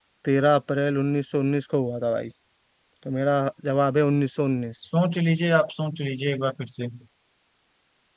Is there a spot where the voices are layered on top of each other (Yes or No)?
No